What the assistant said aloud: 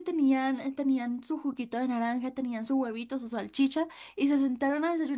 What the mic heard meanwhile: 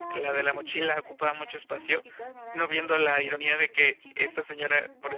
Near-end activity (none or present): present